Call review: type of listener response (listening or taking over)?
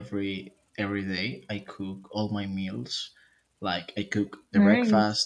listening